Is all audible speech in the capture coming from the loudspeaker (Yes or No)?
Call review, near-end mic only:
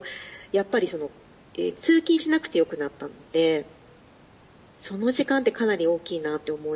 Yes